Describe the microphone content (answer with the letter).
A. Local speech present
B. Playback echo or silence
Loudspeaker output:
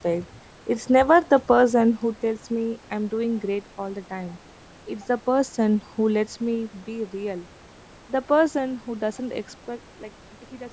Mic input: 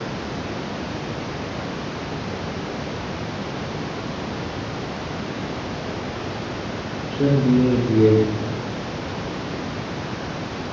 A